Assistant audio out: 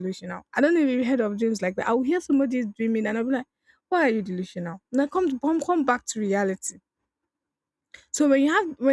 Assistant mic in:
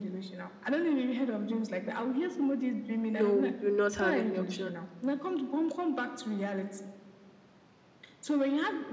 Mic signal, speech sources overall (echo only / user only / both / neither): both